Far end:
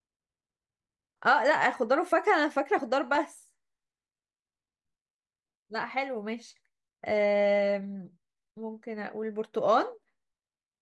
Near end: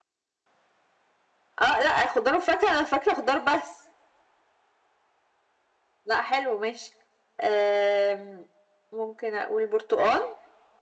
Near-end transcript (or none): none